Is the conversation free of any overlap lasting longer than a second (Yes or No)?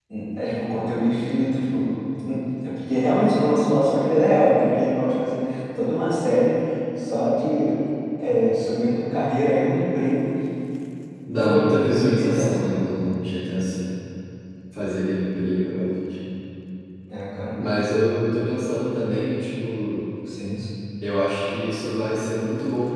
No